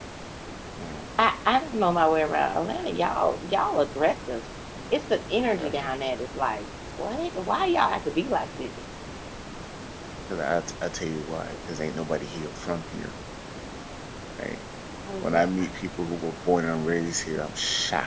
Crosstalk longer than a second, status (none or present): none